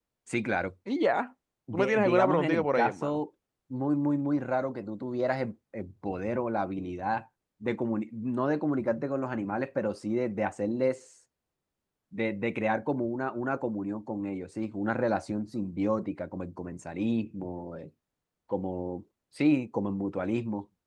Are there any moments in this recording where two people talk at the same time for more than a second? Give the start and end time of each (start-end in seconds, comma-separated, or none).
1.7-3.2